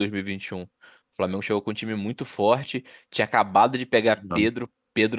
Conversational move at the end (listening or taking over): listening